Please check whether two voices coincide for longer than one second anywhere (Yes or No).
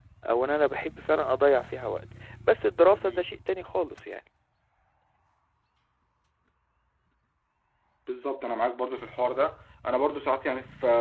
No